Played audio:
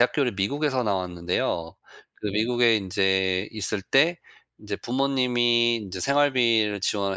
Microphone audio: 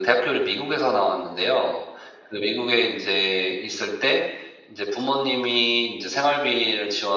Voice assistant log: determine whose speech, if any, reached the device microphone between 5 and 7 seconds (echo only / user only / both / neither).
echo only